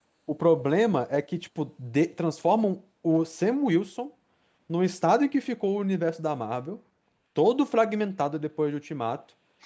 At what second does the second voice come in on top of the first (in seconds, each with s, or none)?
none